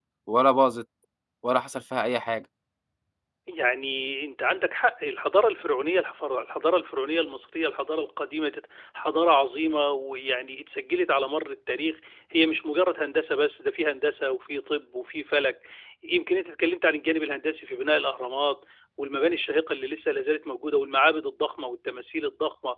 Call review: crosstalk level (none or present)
none